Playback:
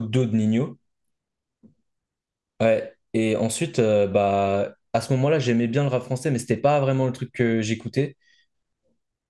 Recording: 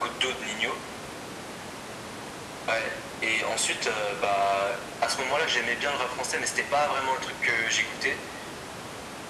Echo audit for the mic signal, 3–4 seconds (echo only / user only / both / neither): echo only